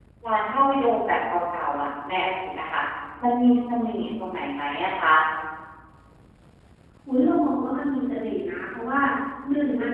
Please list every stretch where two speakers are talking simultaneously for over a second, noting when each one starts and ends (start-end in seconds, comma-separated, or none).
none